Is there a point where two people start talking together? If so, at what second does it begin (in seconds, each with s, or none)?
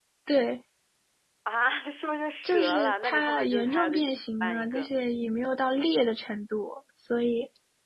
2.4 s